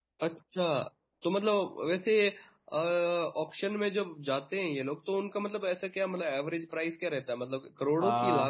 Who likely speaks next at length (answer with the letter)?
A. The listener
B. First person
A